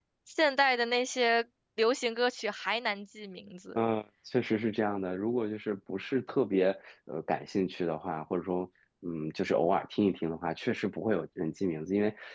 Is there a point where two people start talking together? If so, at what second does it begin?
none

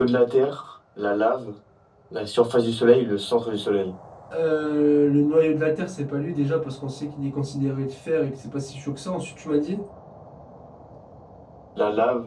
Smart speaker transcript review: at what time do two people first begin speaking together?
none

